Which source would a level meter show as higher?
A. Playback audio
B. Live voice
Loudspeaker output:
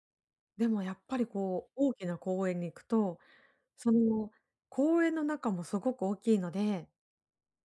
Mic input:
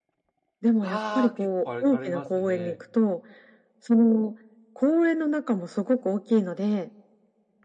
A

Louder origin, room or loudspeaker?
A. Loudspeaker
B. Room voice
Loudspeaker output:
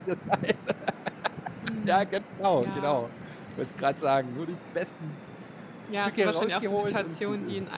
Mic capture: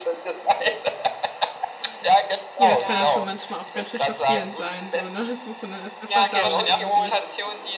A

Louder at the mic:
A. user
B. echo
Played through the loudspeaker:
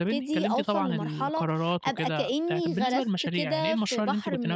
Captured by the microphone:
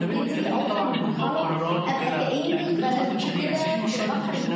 B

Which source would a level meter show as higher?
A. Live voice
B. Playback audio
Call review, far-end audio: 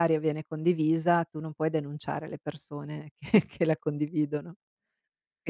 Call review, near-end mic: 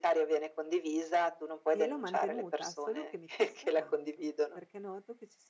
B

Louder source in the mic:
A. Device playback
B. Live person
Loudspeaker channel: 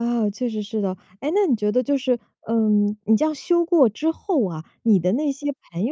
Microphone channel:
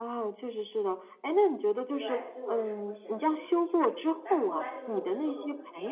A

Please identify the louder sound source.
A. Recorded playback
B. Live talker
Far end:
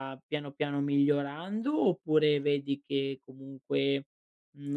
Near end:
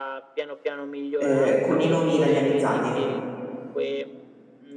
B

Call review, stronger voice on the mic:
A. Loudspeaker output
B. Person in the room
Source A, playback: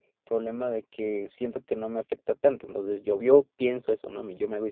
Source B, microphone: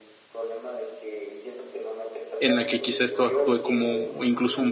B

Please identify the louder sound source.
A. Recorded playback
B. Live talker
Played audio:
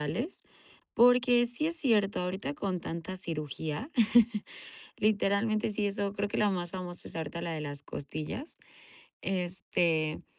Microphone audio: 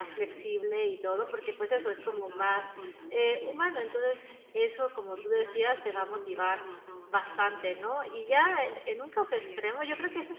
B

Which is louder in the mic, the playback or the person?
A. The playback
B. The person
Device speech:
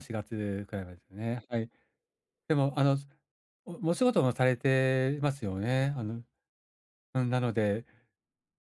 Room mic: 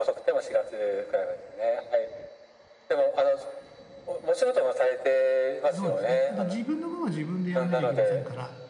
A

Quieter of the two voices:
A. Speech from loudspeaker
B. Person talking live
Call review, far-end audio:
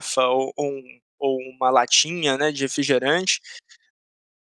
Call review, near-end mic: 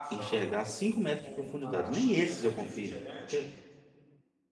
A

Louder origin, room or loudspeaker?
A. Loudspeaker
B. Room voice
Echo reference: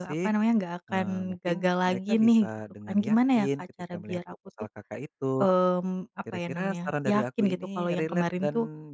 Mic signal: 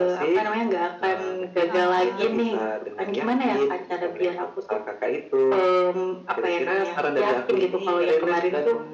A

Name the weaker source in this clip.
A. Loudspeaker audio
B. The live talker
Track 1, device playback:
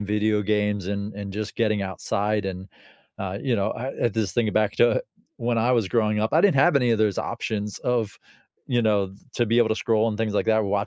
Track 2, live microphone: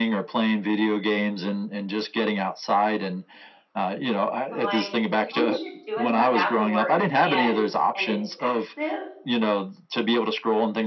B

